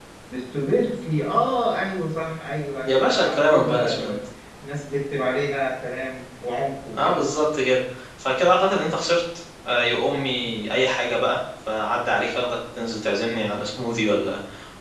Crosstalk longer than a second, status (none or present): present